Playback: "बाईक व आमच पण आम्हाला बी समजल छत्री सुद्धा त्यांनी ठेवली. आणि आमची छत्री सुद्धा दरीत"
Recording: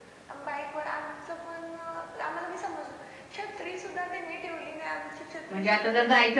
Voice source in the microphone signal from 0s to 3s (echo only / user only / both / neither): echo only